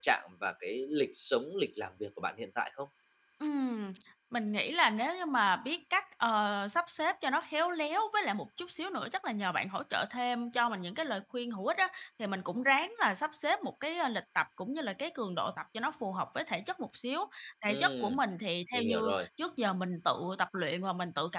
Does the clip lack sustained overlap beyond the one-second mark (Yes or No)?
Yes